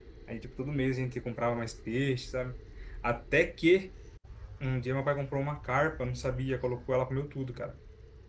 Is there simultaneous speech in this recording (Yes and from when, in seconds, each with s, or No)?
No